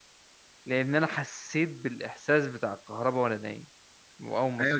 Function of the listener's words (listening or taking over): taking over